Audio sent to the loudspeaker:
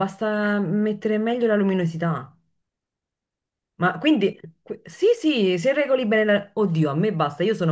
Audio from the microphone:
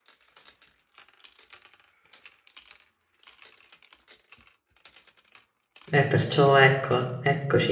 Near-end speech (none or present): present